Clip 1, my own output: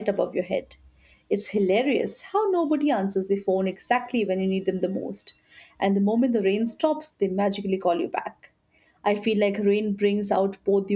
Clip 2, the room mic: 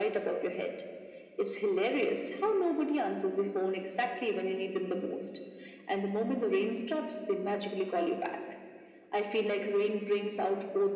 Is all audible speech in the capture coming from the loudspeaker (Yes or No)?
Yes